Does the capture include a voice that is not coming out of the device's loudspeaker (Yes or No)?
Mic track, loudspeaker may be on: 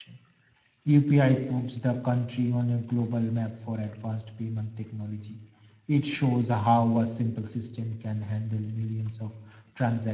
Yes